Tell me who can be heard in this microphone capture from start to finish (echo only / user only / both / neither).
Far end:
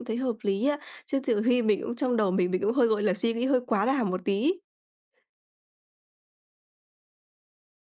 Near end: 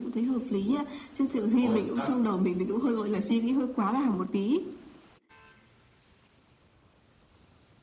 both